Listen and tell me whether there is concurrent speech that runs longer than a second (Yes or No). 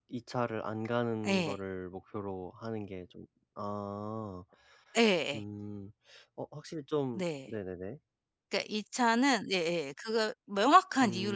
No